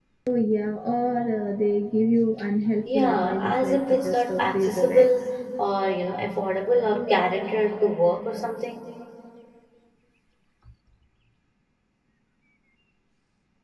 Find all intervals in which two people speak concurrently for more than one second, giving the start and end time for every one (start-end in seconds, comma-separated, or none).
2.9-5.1